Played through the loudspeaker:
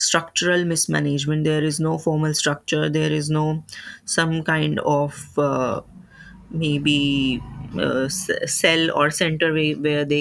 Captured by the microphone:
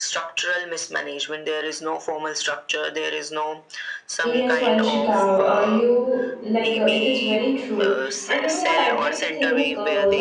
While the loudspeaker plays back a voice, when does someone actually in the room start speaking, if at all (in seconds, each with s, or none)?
4.2 s